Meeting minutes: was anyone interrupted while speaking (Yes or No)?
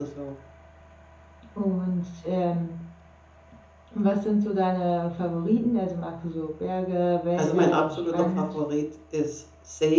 Yes